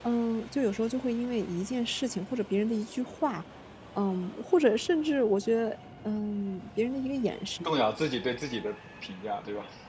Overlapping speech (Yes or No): No